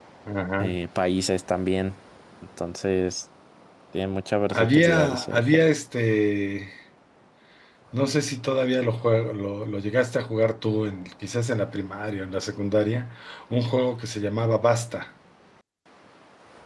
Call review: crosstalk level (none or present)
present